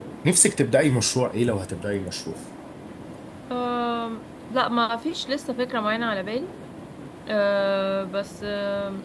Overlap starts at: none

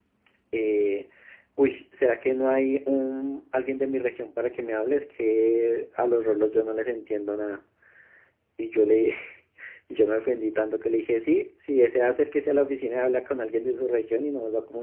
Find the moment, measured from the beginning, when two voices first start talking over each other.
none

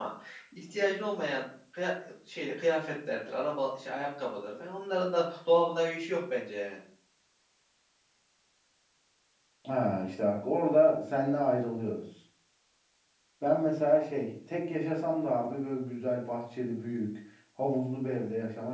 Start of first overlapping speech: none

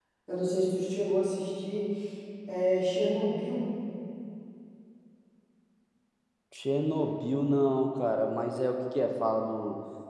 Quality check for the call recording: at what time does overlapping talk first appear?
none

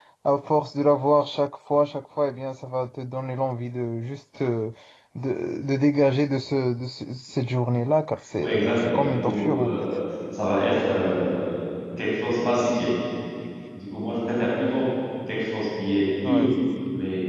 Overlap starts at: 8.4 s

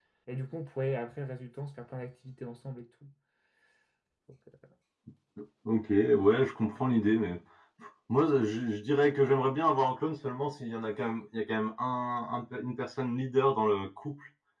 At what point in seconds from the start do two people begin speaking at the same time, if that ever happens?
none

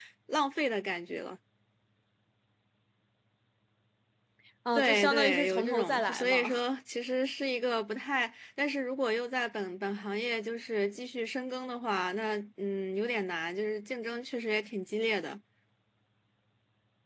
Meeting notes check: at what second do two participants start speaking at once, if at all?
4.8 s

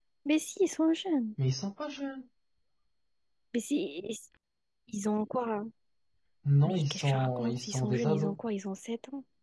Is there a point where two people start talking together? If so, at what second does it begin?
6.6 s

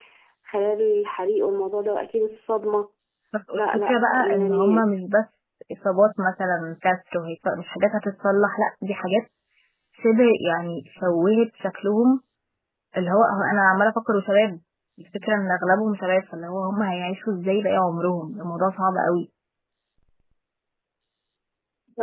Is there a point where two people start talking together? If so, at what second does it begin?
3.6 s

